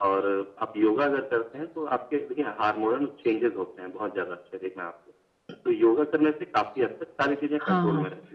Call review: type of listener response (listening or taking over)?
taking over